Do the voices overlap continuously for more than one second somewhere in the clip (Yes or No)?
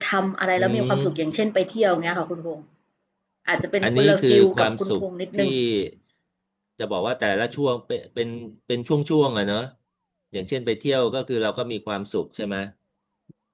Yes